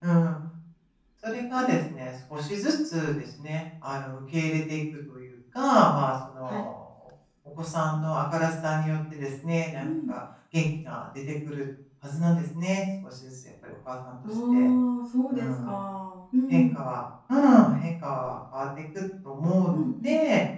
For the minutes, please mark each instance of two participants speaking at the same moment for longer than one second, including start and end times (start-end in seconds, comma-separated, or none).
none